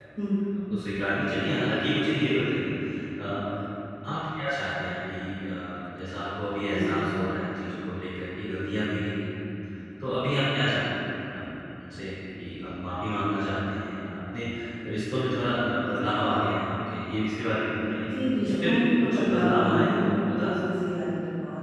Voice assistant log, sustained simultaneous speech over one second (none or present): present